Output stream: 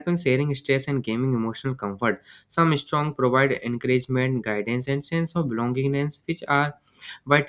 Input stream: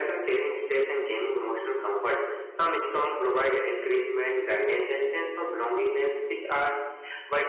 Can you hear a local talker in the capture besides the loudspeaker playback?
No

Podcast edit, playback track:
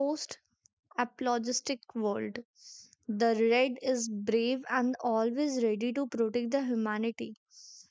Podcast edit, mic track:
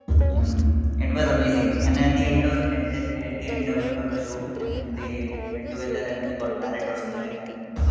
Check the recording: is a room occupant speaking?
Yes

